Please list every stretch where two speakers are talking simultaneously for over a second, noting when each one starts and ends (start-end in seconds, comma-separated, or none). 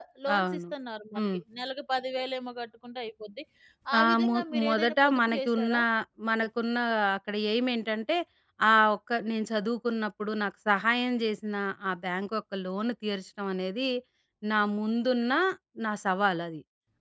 4.0-5.8